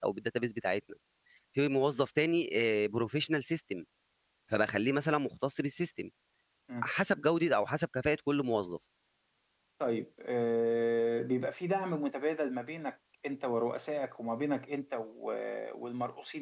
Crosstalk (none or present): none